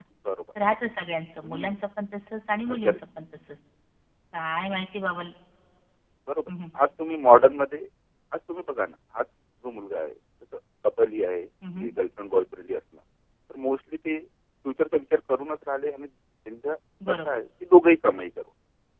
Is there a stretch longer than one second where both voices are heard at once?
No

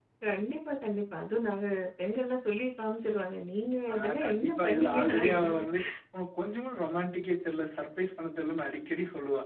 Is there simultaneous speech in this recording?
Yes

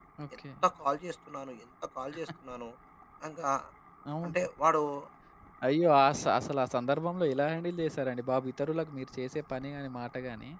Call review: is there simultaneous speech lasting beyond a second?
No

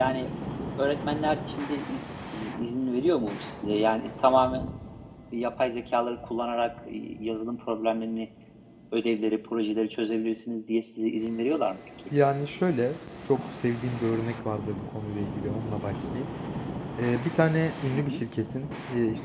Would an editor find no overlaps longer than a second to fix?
Yes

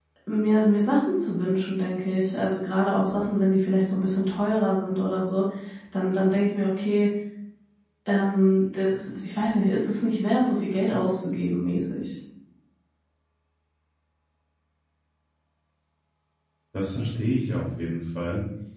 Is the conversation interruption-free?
Yes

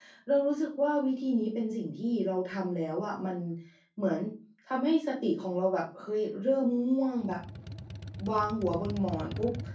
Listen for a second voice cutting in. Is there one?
No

